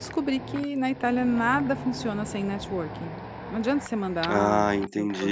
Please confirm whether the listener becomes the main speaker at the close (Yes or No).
Yes